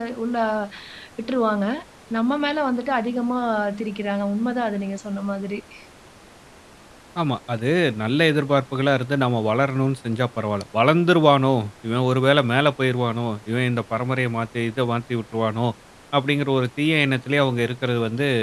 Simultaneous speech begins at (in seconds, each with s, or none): none